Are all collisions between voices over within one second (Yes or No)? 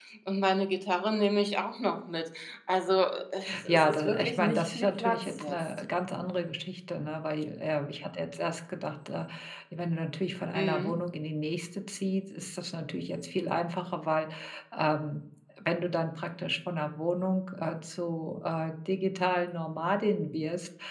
No